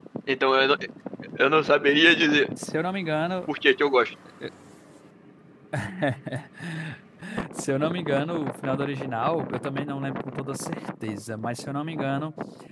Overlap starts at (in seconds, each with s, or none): none